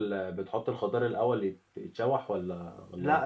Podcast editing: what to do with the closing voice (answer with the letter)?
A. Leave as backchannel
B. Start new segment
B